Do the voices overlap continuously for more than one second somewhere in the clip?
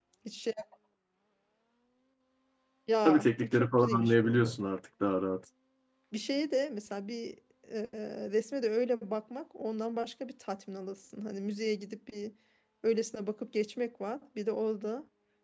Yes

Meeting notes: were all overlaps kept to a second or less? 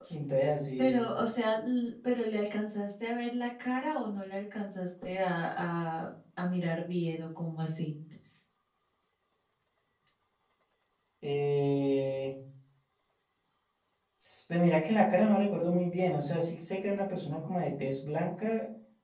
Yes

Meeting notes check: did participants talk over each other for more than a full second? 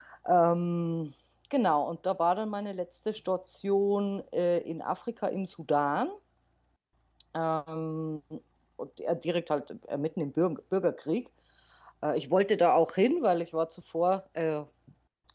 No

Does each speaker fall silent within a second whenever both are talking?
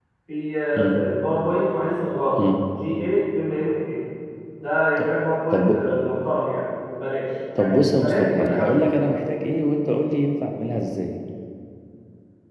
No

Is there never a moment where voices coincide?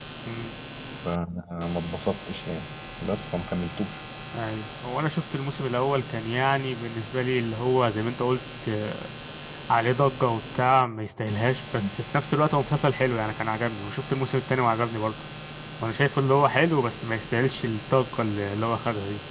Yes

